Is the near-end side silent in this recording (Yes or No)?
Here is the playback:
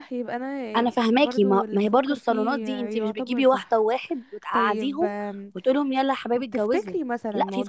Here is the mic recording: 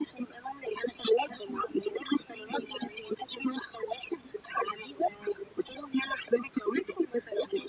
Yes